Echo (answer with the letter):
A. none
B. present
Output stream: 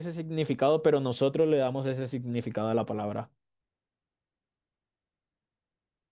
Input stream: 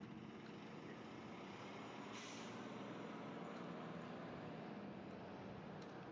A